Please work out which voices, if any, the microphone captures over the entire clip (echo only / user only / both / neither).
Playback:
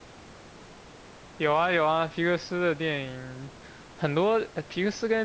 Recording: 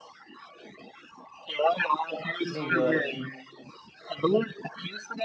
both